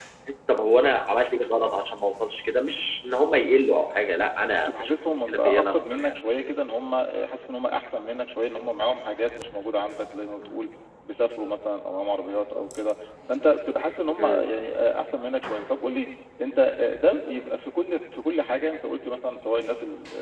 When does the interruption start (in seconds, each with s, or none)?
4.5 s